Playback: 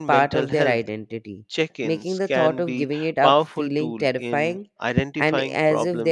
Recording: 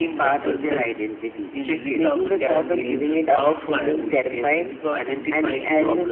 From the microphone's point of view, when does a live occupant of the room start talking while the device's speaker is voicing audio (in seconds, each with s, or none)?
1.5 s